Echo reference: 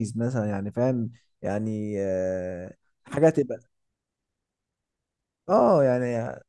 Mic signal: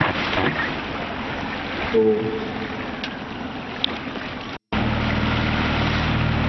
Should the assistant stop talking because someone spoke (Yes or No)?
Yes